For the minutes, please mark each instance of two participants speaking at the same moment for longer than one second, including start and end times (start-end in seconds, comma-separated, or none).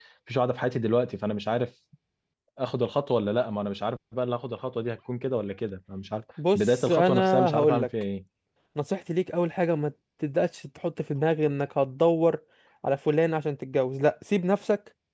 6.6-7.9